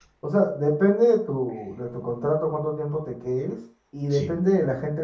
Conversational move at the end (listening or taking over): listening